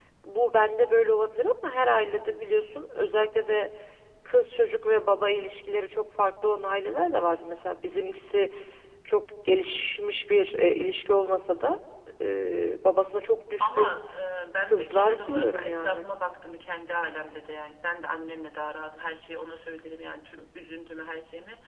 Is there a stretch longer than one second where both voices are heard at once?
Yes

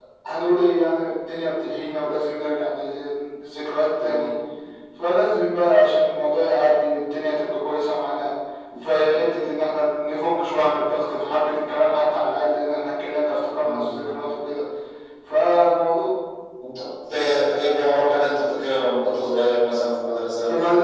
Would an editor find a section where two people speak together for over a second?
No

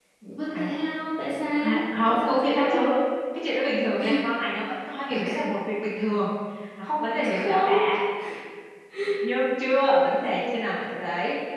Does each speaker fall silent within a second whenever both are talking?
No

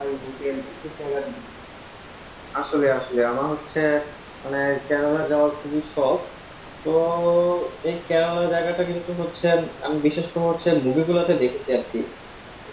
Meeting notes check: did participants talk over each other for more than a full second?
No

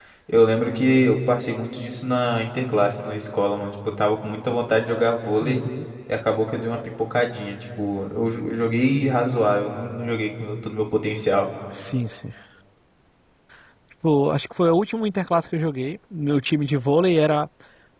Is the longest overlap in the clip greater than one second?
No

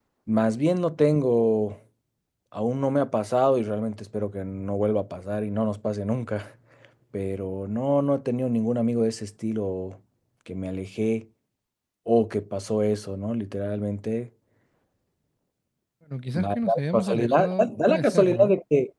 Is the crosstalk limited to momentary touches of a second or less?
No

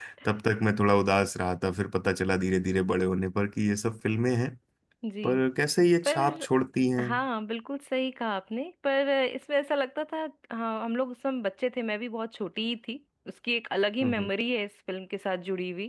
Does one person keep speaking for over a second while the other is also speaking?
No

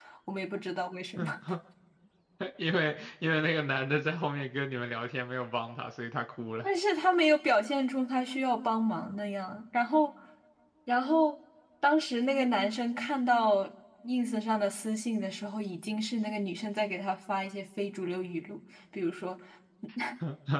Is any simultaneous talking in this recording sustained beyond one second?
No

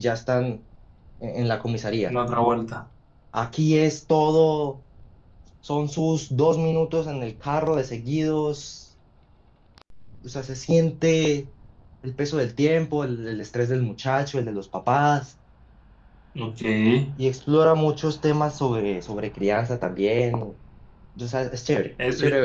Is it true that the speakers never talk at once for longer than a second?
Yes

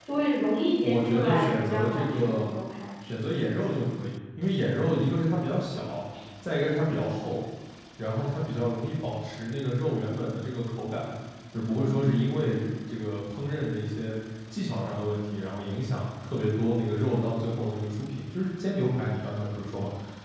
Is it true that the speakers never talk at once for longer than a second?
No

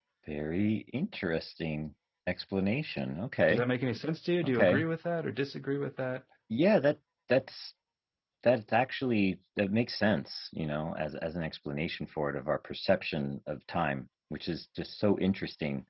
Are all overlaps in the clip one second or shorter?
Yes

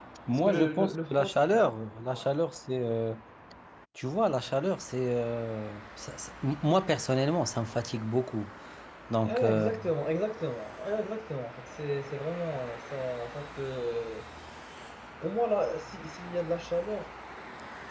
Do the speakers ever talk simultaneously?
Yes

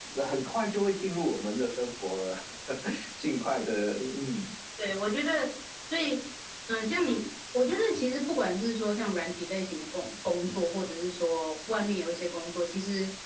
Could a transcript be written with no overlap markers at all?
Yes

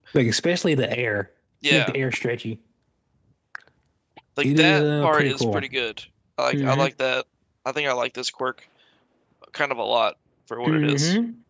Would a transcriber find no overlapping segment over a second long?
No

